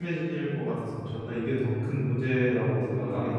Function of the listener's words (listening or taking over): taking over